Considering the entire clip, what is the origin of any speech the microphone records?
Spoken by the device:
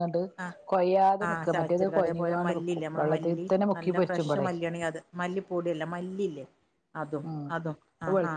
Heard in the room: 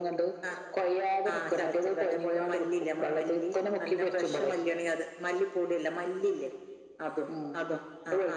echo only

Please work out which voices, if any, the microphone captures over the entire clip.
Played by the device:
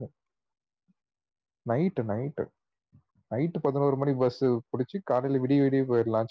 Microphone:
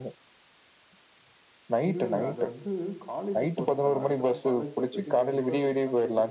both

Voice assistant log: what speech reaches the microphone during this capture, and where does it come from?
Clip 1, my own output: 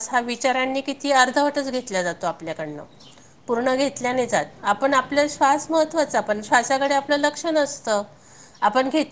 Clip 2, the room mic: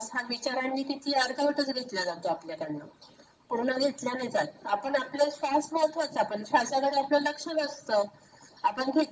echo only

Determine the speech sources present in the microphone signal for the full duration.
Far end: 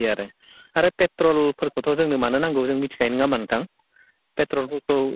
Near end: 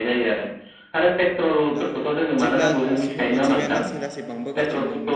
both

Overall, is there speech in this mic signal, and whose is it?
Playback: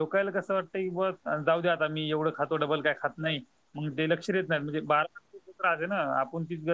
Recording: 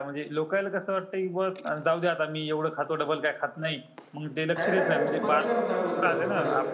both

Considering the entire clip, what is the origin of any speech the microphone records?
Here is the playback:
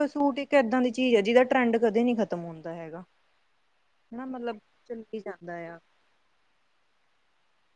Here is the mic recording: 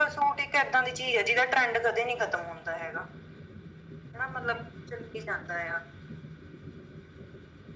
echo only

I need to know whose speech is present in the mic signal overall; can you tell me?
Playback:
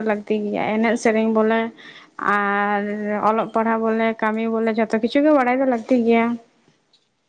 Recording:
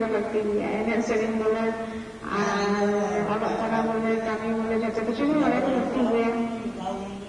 both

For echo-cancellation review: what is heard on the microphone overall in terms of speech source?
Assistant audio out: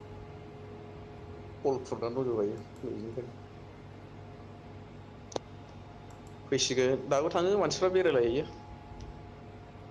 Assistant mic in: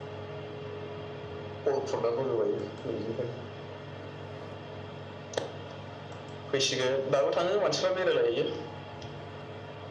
echo only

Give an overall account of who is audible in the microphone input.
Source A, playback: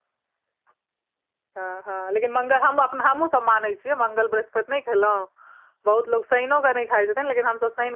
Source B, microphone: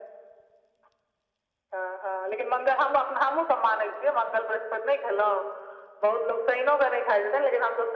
echo only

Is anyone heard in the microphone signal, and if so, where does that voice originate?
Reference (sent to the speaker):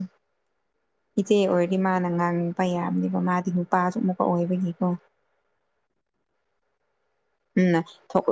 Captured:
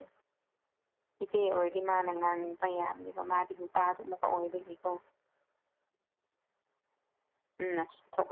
echo only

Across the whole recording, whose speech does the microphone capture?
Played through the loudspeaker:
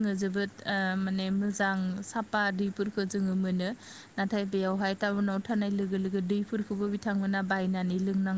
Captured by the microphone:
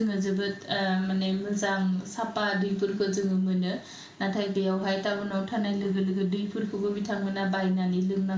echo only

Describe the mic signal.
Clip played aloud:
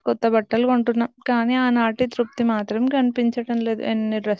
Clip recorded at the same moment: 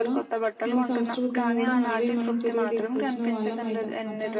both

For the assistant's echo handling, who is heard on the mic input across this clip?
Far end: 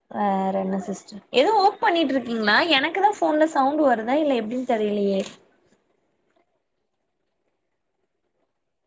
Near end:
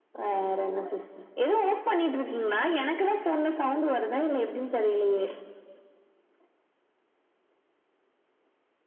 echo only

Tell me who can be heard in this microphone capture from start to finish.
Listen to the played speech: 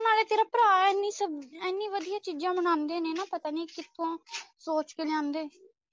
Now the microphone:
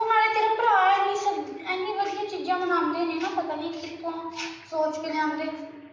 echo only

